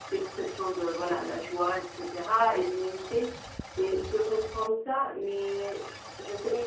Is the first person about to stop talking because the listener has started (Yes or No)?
Yes